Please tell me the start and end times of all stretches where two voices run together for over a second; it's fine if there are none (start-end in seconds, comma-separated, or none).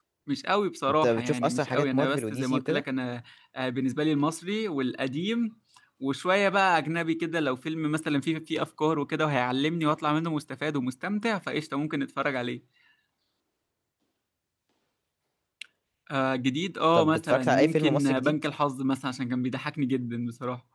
1.0-2.8, 16.9-18.4